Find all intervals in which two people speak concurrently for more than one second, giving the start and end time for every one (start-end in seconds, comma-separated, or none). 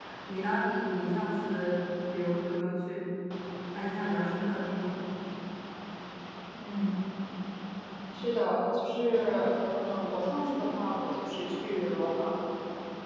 none